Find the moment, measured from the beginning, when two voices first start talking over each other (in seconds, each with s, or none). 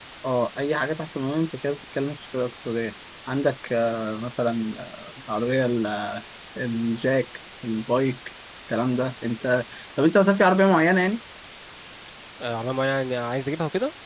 none